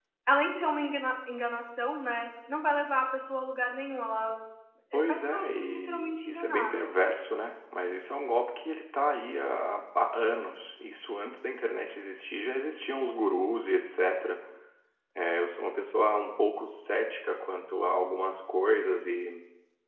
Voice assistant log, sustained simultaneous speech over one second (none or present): present